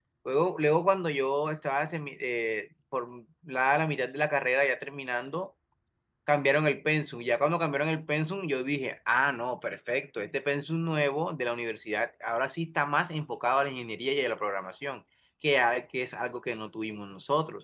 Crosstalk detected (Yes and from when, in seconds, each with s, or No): No